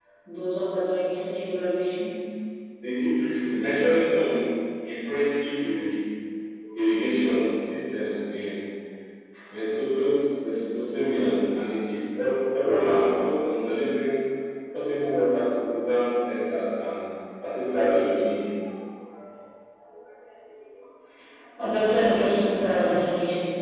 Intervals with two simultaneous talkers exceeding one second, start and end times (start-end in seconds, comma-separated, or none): none